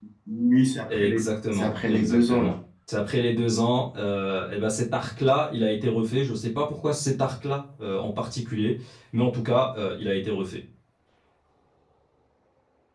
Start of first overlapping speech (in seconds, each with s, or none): 0.9 s